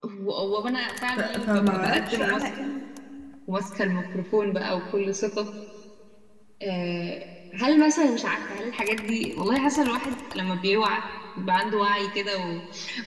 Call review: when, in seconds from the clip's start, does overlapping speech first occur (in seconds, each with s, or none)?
1.1 s